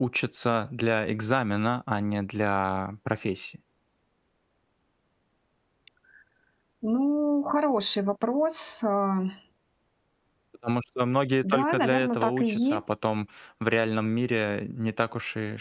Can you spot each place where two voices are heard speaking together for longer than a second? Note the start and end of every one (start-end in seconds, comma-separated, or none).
11.4-12.8